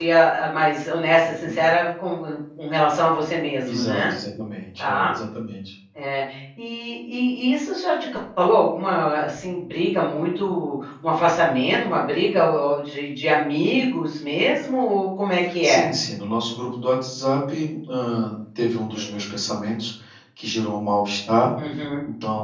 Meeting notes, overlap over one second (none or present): none